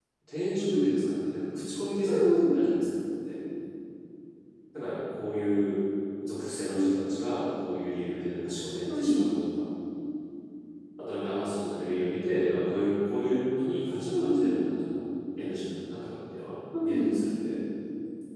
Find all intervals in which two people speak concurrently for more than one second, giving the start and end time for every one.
none

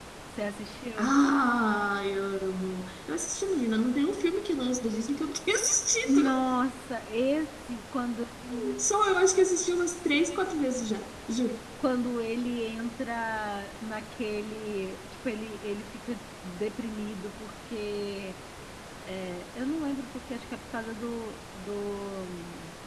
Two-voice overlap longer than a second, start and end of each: none

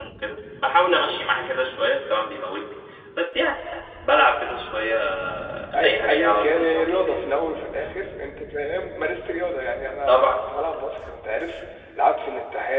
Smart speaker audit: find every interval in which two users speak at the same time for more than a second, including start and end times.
5.7-7.2

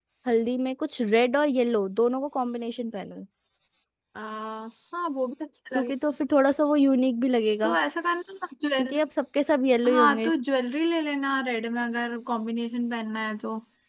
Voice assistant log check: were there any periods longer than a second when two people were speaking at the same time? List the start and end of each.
none

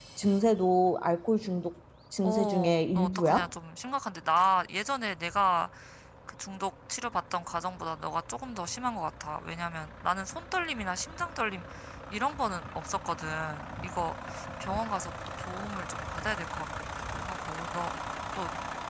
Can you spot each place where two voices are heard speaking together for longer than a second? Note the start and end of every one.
2.2-3.5

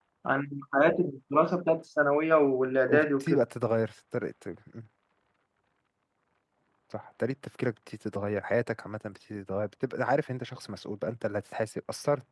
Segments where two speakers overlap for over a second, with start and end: none

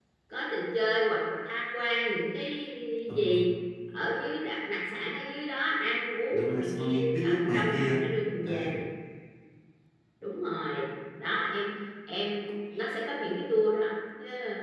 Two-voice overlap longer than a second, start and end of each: 6.3-8.0

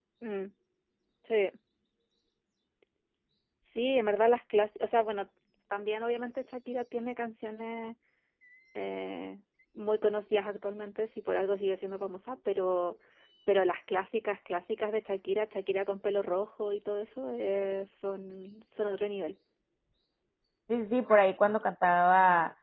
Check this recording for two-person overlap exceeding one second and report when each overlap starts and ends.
none

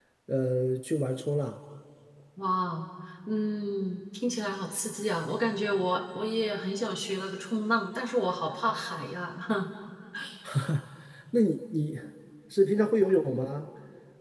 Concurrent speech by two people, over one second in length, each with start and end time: none

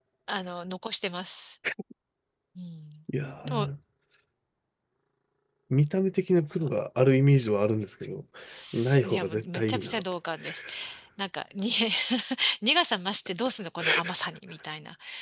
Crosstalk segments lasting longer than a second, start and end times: 8.7-10.0

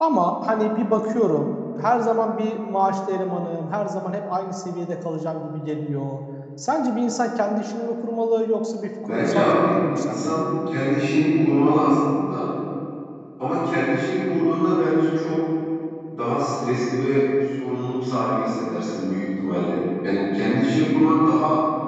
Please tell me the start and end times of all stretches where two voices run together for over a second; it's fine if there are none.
9.0-10.4

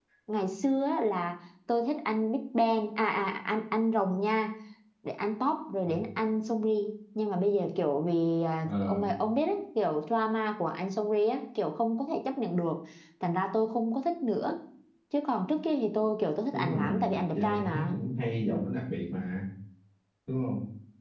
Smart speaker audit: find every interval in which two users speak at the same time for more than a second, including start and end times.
16.5-18.0

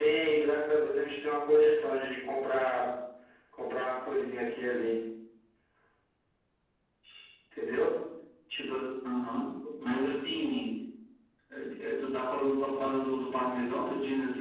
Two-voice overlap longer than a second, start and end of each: none

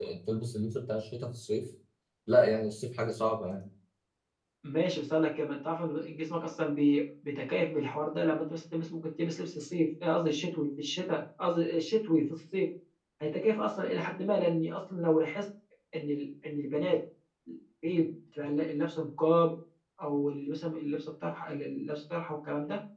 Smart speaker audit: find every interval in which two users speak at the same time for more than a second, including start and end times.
none

